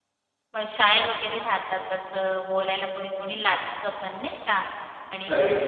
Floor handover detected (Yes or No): No